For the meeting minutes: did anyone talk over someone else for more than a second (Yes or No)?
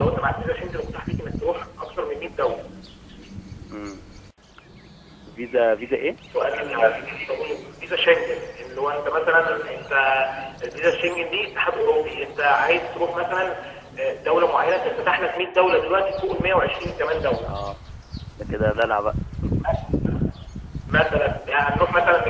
No